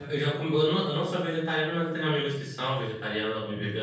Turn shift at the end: No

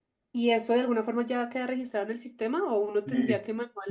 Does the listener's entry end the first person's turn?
Yes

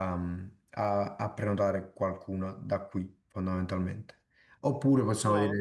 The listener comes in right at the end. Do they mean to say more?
No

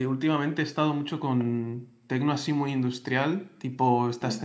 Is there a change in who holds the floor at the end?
No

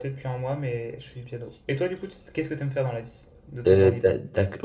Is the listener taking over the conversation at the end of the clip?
Yes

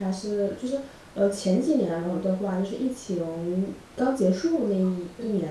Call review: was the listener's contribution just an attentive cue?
Yes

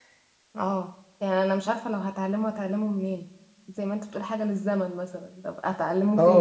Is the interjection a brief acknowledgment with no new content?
No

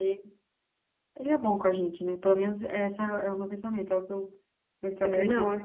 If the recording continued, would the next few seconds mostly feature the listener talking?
Yes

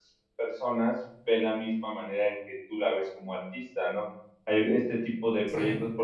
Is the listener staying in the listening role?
Yes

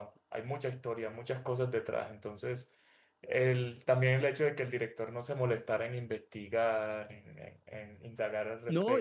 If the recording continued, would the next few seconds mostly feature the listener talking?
Yes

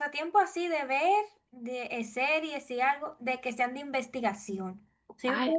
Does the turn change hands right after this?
No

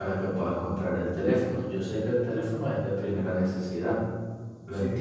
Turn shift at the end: Yes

